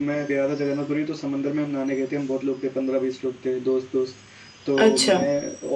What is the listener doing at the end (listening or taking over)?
listening